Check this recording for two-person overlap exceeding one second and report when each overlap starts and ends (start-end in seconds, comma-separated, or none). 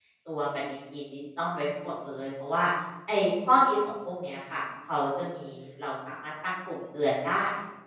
none